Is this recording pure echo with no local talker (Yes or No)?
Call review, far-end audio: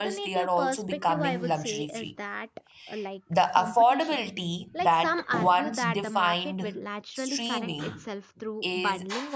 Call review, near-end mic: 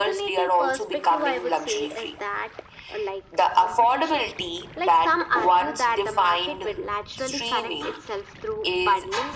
Yes